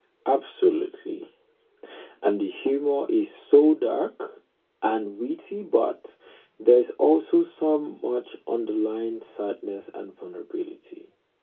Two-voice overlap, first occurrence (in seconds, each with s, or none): none